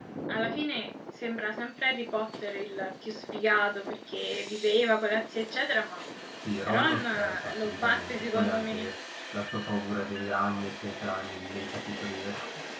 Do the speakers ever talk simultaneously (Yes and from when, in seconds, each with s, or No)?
Yes, from 6.6 s